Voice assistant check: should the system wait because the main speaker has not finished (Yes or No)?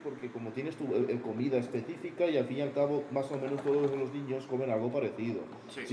Yes